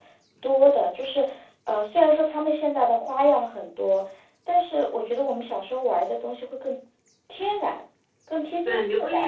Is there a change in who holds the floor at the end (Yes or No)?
Yes